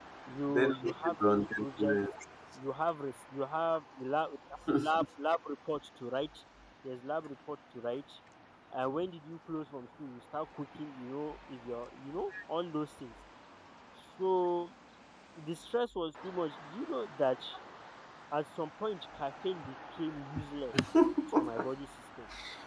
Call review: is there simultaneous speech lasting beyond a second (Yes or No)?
Yes